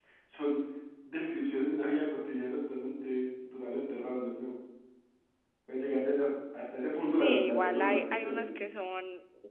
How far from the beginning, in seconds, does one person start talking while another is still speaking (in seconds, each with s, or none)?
7.1 s